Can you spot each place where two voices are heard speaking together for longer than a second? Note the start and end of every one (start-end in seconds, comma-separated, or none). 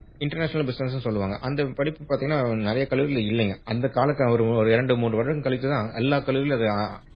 none